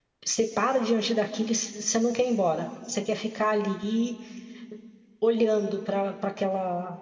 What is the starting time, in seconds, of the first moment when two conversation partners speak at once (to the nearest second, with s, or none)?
none